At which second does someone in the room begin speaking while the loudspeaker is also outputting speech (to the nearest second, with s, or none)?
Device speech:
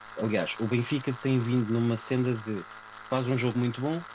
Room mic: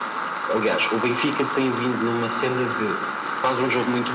none